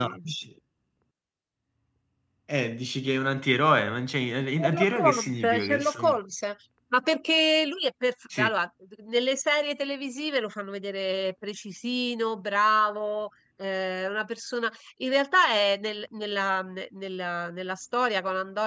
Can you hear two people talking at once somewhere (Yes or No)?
Yes